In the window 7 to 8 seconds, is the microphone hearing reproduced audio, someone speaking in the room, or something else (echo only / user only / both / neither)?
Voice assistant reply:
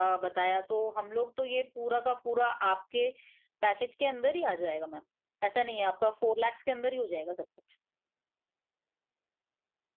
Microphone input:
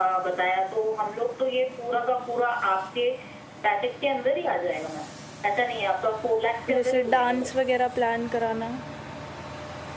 both